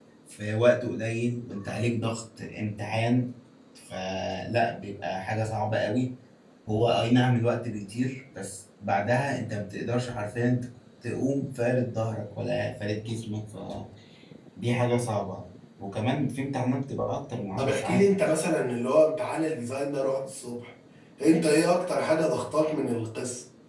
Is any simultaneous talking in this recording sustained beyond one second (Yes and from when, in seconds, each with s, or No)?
No